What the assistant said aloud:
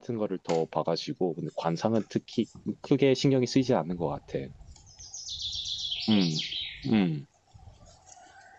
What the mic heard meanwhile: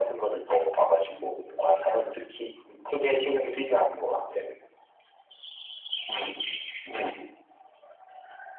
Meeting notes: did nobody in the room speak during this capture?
Yes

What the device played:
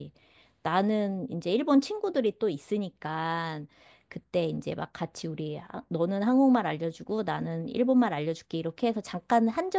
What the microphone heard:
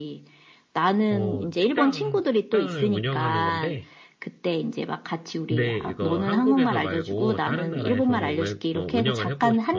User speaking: Yes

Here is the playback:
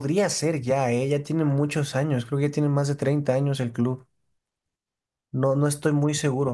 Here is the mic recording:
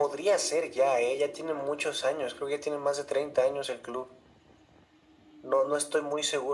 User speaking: No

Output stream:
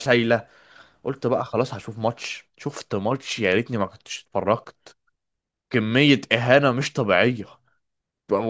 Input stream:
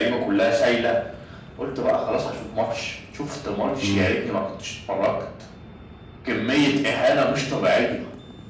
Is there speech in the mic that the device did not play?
Yes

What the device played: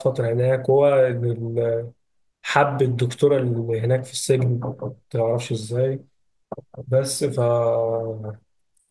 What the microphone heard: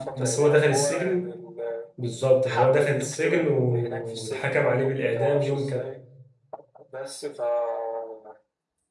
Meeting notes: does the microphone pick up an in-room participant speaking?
Yes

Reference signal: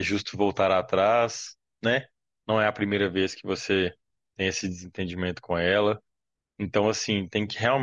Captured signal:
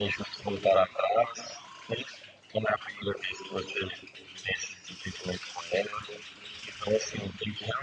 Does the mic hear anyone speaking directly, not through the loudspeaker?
No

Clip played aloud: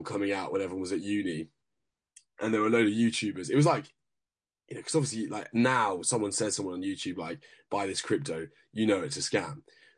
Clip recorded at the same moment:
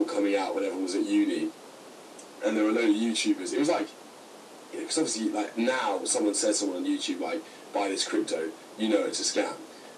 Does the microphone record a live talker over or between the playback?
No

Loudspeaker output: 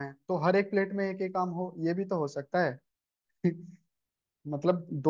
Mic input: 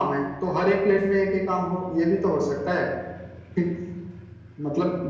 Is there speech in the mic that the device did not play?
No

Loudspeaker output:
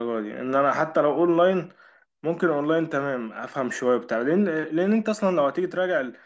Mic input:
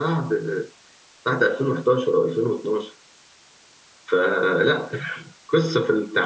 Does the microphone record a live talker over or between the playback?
Yes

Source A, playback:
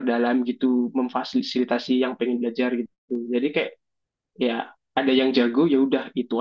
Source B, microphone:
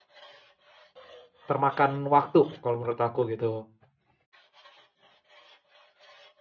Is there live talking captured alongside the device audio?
Yes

